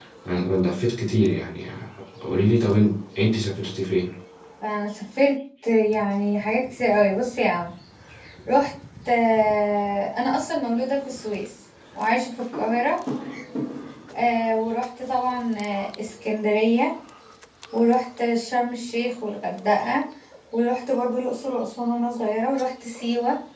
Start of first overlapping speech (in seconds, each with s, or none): none